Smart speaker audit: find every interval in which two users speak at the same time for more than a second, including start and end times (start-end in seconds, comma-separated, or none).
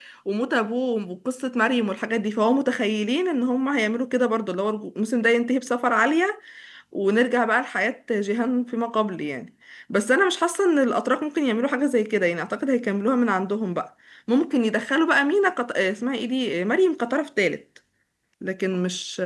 none